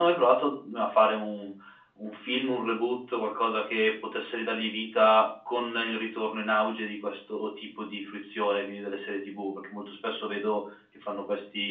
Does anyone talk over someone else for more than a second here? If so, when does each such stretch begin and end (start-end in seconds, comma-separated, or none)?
none